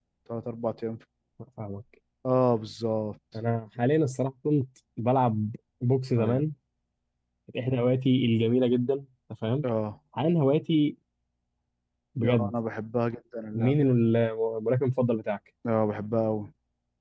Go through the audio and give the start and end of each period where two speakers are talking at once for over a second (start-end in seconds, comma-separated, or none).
none